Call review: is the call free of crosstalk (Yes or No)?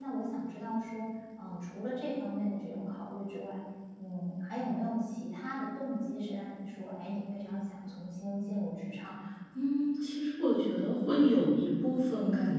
Yes